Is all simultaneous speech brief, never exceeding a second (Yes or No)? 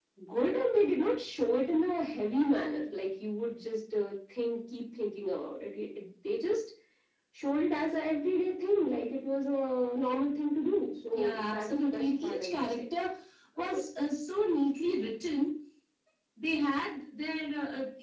No